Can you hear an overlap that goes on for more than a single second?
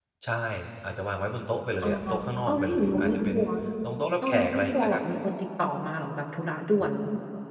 Yes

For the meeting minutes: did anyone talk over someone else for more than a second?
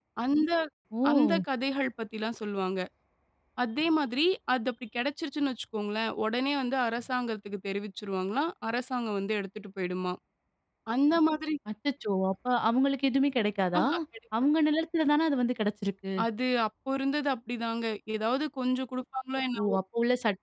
No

